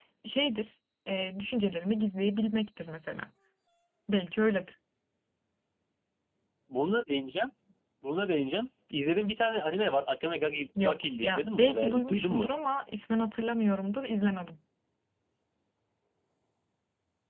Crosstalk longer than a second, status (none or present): present